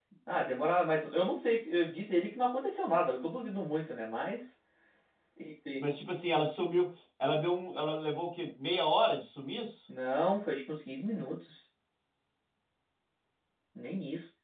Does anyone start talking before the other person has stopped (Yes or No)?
No